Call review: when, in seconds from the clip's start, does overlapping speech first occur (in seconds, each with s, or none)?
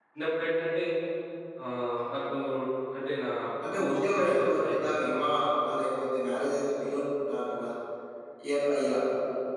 3.8 s